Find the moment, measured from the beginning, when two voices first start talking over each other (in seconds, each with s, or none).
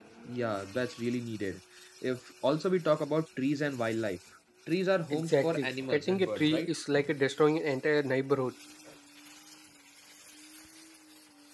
5.1 s